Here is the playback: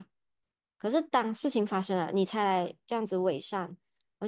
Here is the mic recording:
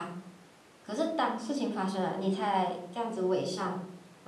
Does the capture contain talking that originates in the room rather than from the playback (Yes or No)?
No